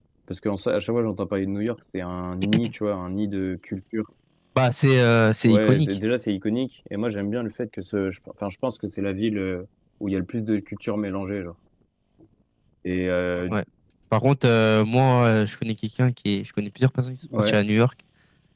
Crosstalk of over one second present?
No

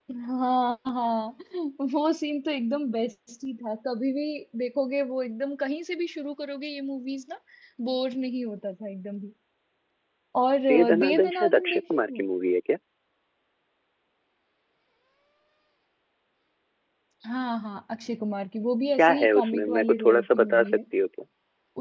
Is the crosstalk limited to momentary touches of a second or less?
No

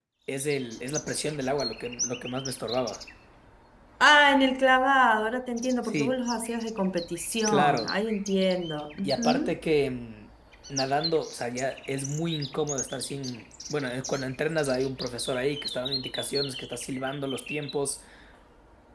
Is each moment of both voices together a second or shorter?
Yes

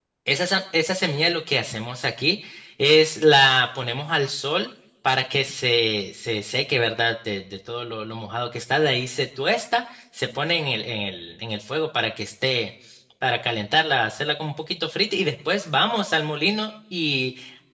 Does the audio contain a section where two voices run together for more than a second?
No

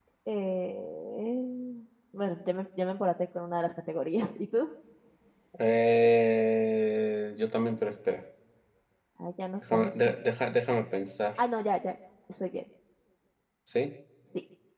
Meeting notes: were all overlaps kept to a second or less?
Yes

